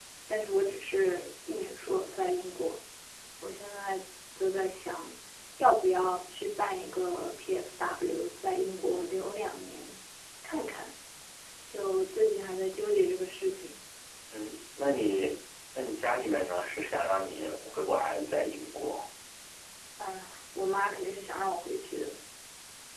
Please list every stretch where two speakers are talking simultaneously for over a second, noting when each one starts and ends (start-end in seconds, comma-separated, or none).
none